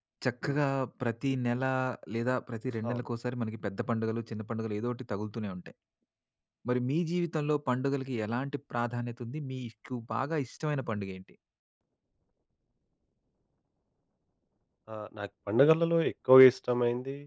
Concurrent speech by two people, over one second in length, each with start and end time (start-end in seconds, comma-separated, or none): none